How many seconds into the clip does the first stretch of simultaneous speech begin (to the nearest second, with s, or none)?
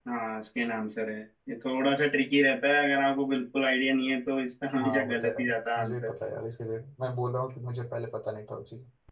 5 s